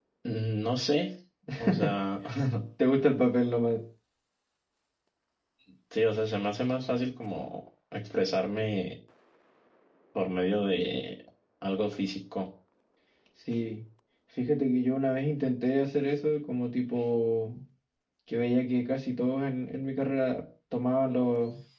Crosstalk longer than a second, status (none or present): none